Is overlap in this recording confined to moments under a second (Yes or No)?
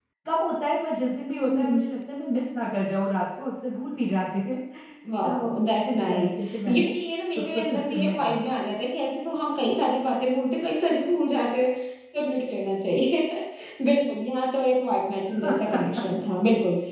No